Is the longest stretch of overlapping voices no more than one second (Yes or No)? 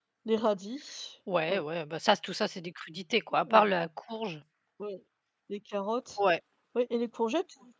Yes